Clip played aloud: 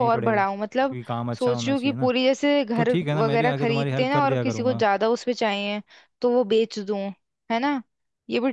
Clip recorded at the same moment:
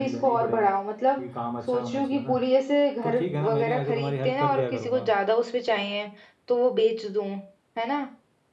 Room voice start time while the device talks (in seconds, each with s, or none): none